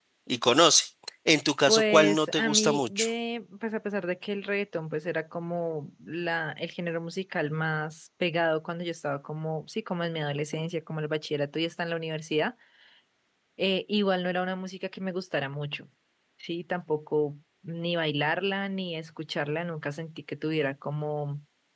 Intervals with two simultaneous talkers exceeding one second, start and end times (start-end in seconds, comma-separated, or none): 1.7-3.1